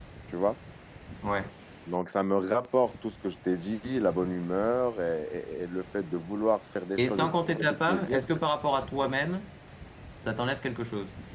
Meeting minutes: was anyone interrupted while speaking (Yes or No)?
Yes